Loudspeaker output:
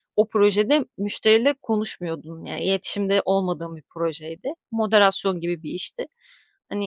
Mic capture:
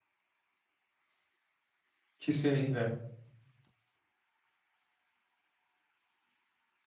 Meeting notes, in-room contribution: present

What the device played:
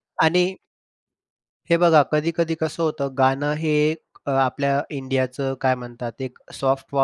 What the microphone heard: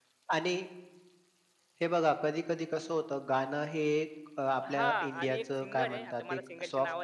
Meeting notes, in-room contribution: present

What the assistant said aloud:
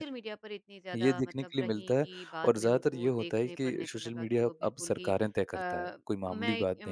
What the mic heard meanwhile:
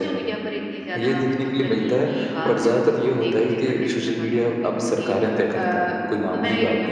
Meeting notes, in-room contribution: none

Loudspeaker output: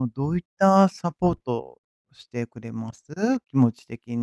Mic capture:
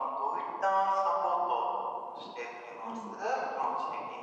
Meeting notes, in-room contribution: present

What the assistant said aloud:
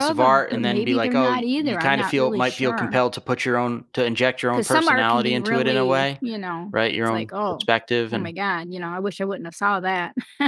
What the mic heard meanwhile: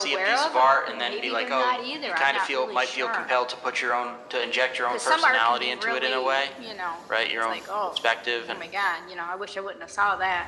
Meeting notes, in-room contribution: none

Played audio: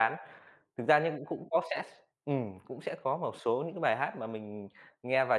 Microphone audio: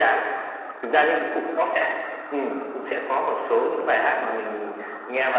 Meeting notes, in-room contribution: none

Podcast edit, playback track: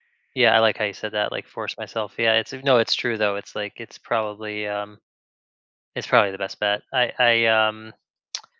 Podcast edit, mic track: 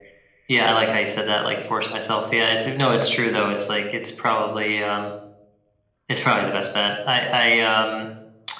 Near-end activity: none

